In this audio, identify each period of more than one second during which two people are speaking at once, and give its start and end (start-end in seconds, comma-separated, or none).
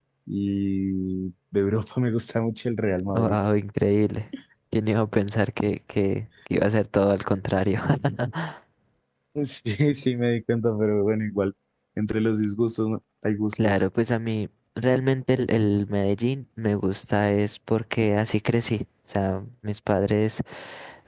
none